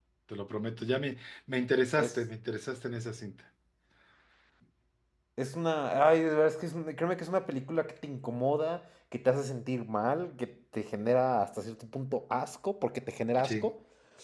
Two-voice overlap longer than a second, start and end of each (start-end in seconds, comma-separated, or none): none